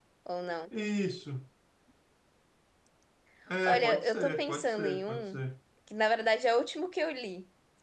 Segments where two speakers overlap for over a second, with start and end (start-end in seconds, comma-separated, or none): 3.7-5.4